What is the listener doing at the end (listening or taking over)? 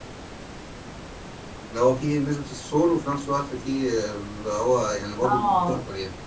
taking over